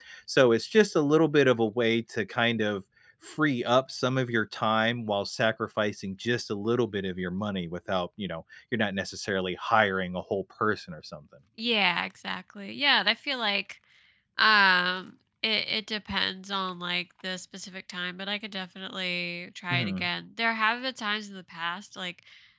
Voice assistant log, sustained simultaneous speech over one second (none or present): none